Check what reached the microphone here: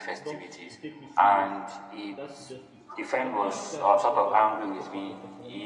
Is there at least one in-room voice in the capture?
Yes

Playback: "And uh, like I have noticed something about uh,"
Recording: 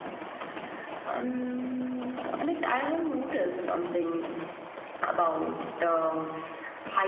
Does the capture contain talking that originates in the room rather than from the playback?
No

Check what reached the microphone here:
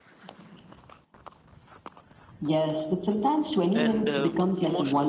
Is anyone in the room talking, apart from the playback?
Yes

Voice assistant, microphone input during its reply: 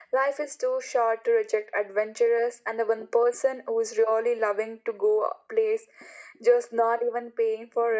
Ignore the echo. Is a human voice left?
No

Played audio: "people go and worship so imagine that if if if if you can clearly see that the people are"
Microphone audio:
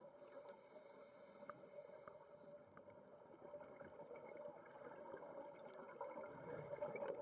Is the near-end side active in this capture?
No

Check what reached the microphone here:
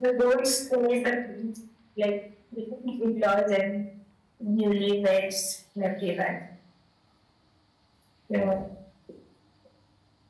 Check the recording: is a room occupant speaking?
Yes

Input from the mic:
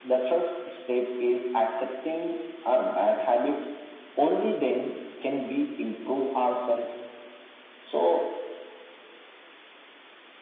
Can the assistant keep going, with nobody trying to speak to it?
Yes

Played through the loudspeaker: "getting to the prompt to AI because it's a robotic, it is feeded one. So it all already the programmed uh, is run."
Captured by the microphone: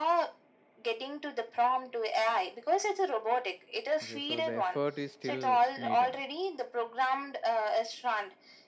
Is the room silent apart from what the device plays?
No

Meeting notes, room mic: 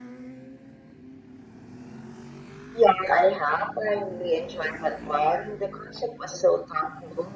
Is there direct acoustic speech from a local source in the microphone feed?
No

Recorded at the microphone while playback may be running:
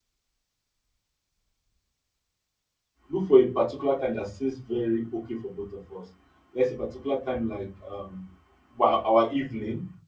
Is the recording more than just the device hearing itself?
Yes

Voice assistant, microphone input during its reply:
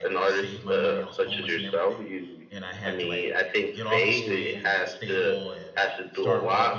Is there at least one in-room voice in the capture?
Yes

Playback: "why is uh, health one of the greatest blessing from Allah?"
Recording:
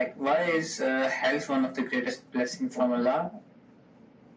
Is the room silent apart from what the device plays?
Yes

